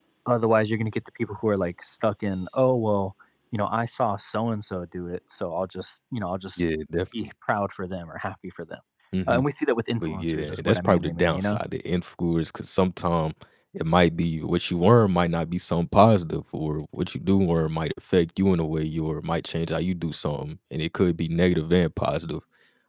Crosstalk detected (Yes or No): Yes